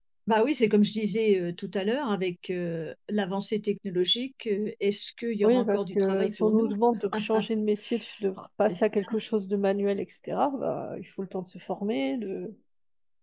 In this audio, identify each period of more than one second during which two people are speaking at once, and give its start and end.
5.4-6.7

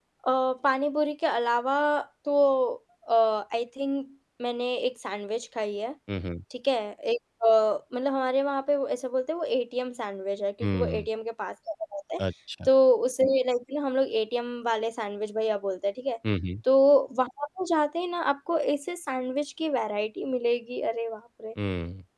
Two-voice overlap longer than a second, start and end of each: none

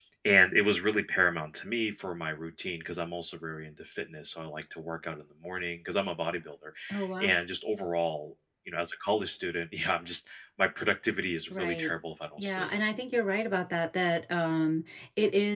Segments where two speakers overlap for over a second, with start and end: none

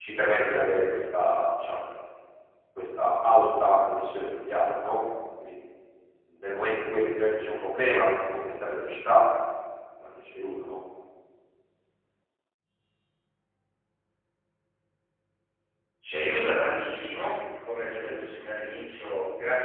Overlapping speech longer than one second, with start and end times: none

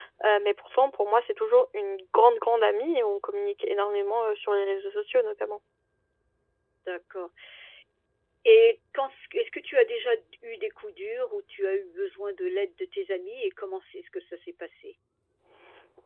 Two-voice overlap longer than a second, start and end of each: none

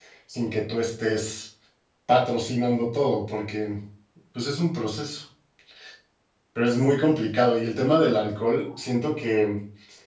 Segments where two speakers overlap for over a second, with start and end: none

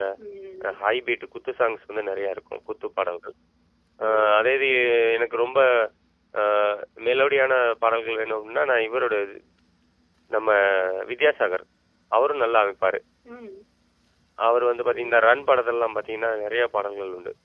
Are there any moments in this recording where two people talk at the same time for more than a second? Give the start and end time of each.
none

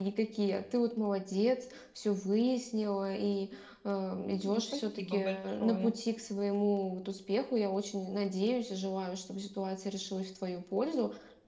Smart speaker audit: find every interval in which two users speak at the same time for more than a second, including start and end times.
4.5-5.9

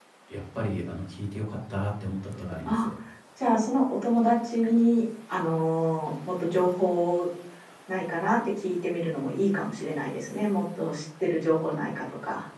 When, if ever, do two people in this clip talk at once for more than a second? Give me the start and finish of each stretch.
none

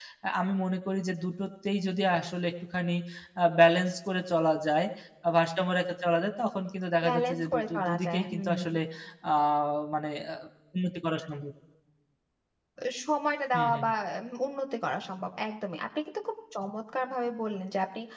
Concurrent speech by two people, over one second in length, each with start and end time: 7.0-8.6

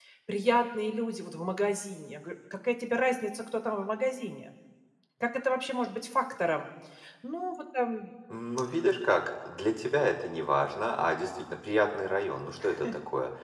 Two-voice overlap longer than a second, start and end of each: none

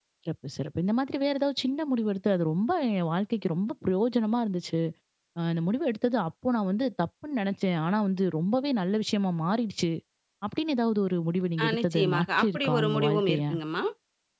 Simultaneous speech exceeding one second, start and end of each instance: 11.6-13.4

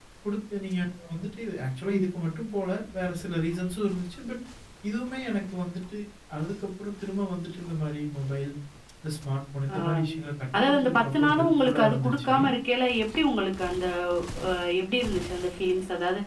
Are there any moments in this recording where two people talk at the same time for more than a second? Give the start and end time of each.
10.6-12.3

